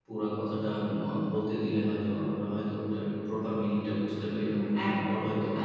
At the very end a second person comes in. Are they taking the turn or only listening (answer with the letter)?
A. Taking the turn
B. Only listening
A